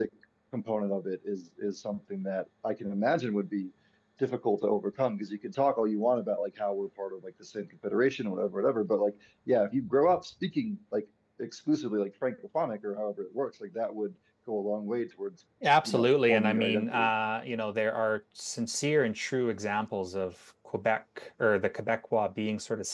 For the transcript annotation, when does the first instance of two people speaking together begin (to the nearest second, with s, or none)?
16 s